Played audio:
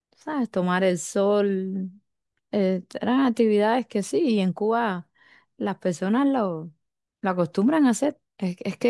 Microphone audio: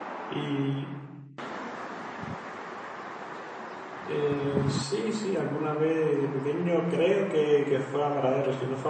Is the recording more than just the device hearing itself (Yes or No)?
Yes